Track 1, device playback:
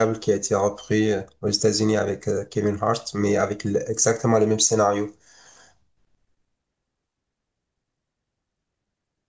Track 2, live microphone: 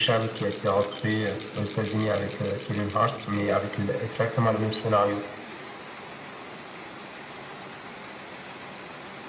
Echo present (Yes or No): Yes